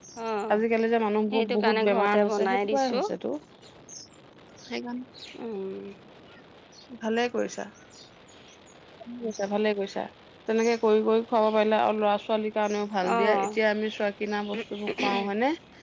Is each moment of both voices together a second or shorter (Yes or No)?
No